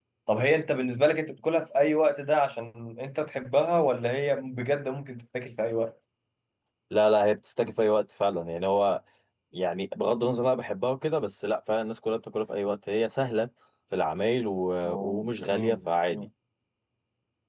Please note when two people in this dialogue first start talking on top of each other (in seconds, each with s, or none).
14.8 s